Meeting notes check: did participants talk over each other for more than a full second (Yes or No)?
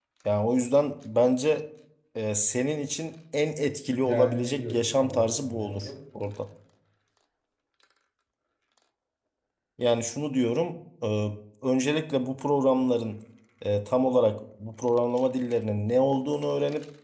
Yes